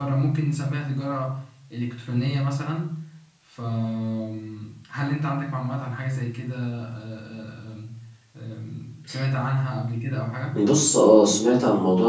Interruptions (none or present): none